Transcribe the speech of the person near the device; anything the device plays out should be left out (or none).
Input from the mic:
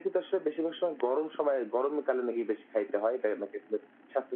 none